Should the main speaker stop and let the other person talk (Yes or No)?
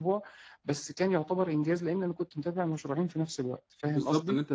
Yes